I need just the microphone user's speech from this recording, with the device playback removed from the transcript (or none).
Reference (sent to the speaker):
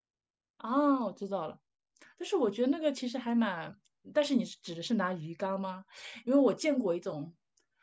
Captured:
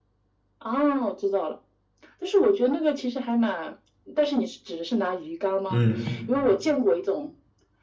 嗯，